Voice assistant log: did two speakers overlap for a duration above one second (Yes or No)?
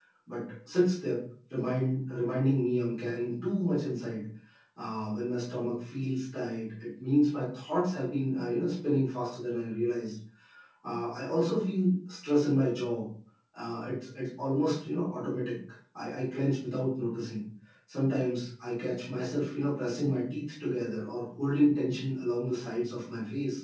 No